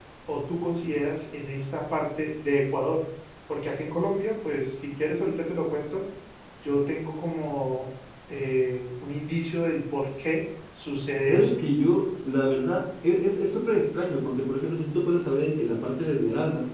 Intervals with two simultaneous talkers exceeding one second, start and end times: none

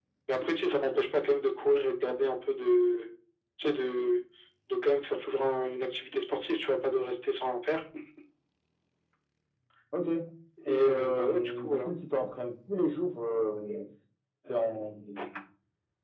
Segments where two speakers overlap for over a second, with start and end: 10.7-11.9

